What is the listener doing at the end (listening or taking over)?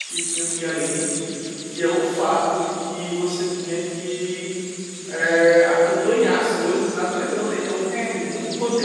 listening